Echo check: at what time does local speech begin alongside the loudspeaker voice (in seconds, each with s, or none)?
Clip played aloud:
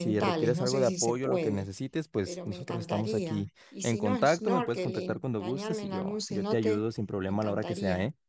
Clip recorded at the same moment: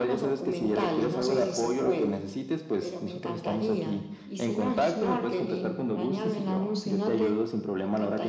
none